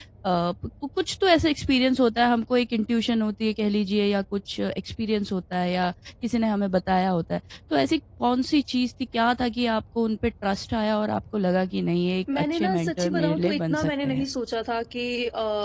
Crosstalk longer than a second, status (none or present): present